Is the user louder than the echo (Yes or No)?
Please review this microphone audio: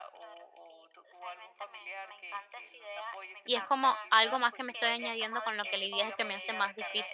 Yes